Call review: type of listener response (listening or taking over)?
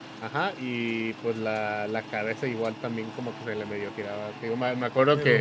listening